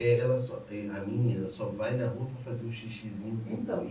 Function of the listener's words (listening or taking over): listening